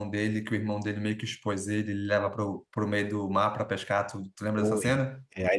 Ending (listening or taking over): taking over